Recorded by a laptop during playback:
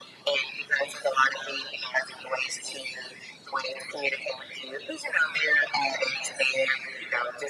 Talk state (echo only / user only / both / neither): echo only